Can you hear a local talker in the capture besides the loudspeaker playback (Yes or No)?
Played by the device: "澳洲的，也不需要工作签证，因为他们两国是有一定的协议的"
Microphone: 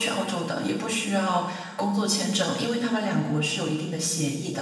No